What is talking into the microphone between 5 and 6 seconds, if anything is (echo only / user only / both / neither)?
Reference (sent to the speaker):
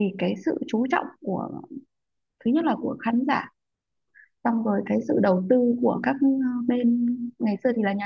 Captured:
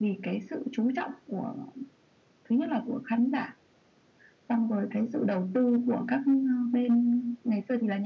echo only